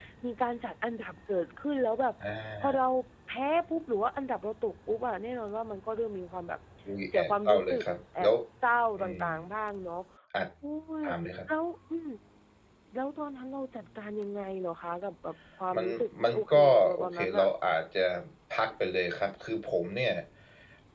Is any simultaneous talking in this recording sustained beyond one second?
Yes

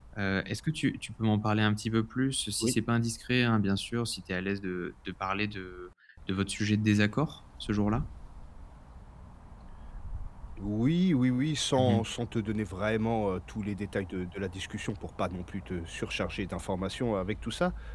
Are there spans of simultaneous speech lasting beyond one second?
No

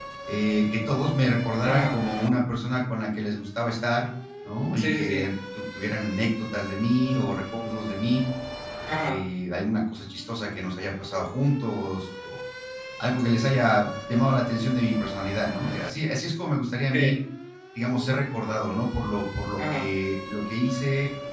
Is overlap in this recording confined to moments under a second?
Yes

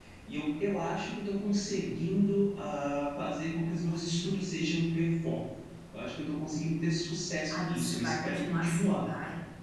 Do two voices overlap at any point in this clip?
Yes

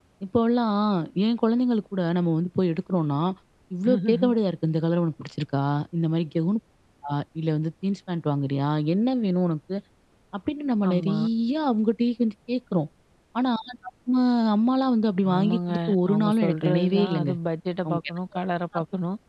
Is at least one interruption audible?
Yes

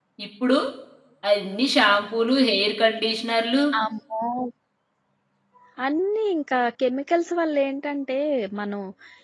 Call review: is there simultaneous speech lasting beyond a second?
No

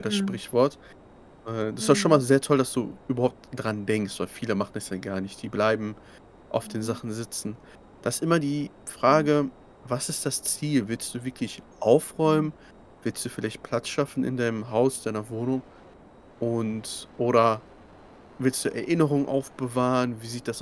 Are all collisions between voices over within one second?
Yes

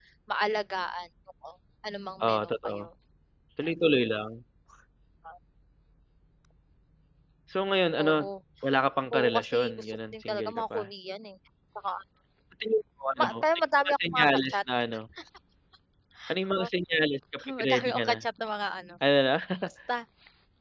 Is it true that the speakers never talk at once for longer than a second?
No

